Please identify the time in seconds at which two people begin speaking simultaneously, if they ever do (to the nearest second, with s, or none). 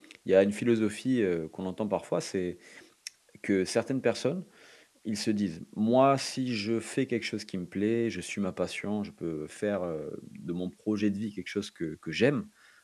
none